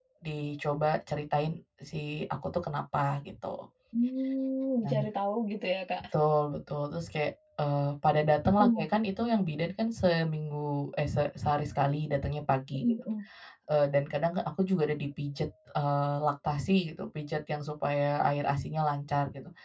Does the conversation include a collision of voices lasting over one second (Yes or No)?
No